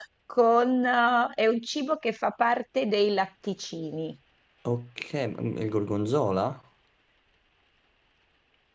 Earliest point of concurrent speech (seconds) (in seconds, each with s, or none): none